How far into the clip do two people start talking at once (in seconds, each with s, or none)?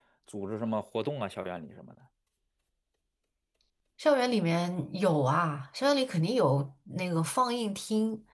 none